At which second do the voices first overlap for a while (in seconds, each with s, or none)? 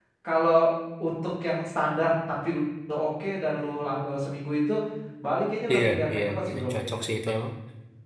5.7 s